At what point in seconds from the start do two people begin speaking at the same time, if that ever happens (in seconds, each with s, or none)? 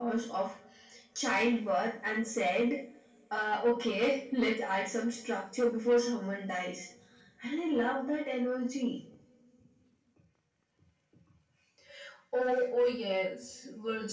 none